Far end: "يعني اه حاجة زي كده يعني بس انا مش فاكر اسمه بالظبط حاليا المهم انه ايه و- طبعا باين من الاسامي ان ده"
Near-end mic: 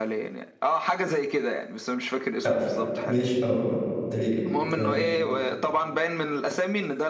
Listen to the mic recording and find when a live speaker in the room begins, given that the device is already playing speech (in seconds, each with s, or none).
2.5 s